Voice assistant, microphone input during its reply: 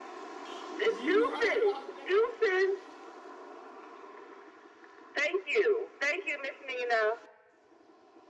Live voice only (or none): You right about that?